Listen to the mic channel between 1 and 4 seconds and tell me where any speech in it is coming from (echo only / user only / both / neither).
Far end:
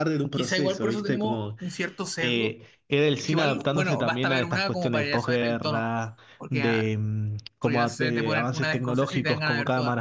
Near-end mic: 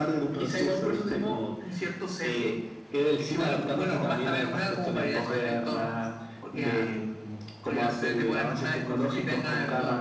echo only